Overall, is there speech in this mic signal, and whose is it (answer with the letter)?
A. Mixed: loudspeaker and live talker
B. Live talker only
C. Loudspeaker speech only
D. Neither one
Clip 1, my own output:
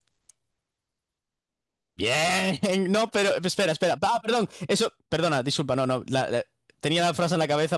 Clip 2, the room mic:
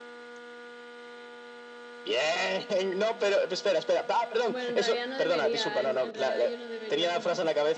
A